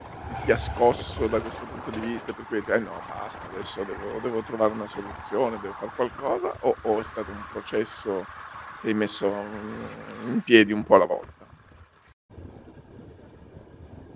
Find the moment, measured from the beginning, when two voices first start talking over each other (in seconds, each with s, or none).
none